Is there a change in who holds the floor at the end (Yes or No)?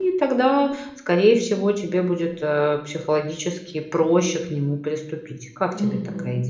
Yes